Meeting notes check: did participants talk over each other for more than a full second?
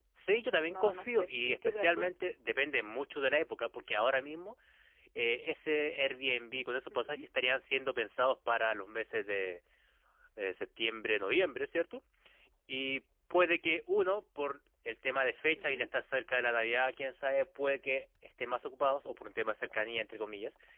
Yes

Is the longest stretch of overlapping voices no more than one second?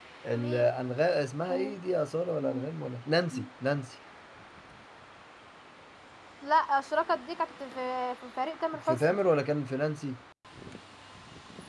Yes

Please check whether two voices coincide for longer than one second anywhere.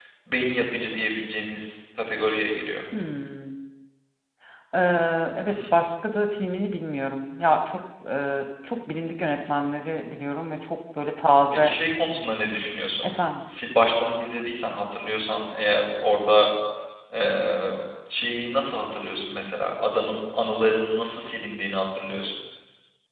No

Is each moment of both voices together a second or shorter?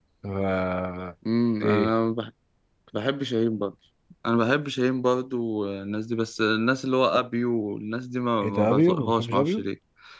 No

